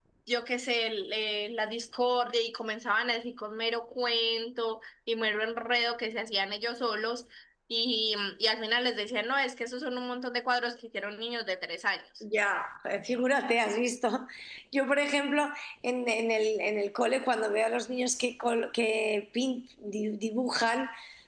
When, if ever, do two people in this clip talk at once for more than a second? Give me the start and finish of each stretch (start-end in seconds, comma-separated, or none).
none